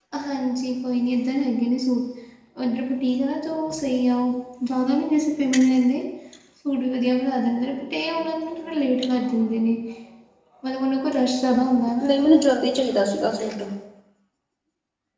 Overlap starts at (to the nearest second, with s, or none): none